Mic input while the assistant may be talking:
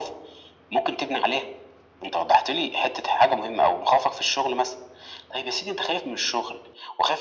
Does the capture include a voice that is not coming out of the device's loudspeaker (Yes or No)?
No